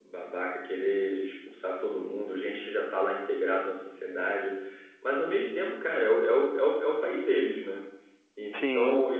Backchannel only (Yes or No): Yes